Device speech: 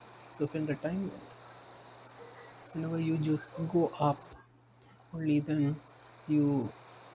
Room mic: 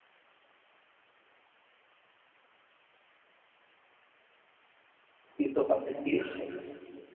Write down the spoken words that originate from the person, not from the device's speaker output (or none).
piece of appreciation